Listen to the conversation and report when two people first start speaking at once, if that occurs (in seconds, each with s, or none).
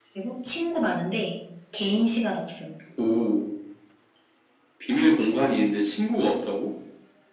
none